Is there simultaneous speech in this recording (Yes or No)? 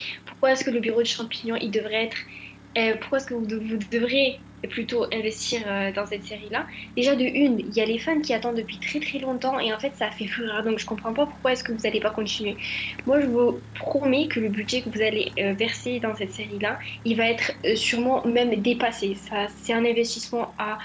No